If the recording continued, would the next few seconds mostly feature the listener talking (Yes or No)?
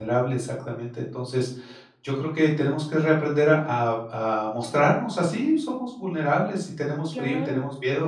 No